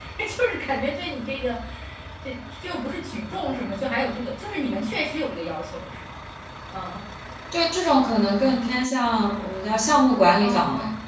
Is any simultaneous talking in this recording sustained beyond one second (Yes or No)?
No